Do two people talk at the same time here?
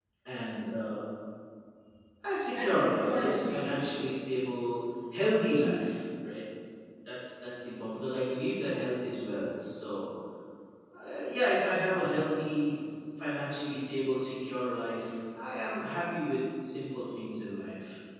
Yes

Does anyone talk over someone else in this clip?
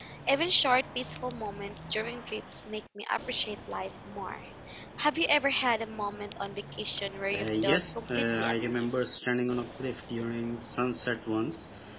Yes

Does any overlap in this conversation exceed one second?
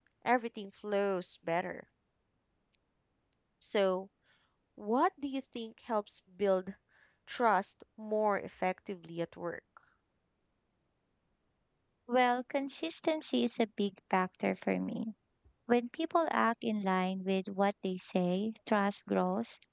No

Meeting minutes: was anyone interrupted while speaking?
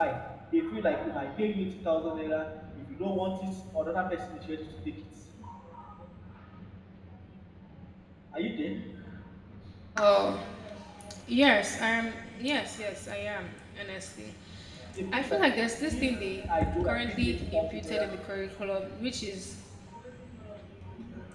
Yes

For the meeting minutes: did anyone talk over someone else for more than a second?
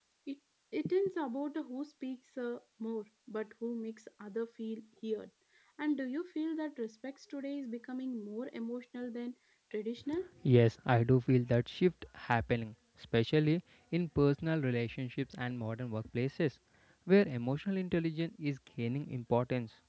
No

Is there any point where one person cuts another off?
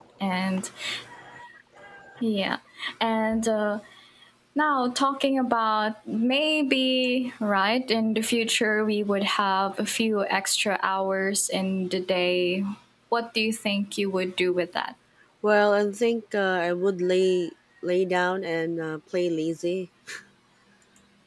No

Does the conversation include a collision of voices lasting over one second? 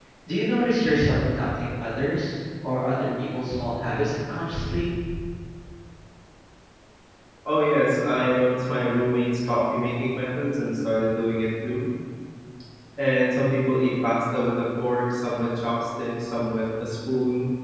No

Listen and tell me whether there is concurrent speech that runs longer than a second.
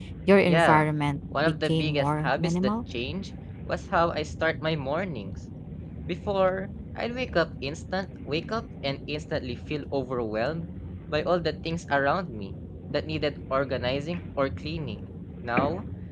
Yes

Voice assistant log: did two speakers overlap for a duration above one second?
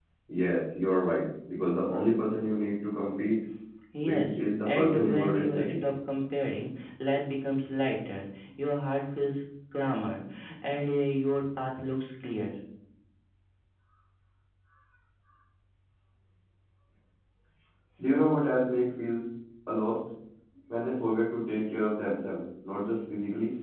Yes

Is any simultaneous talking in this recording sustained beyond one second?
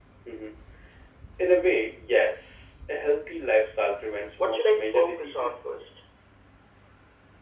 Yes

